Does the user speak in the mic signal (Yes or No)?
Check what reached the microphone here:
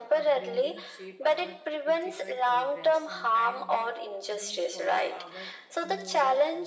Yes